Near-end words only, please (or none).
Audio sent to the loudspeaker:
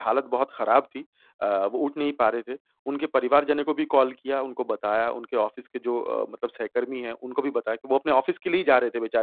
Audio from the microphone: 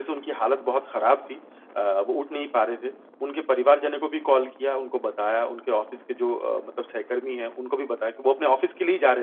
none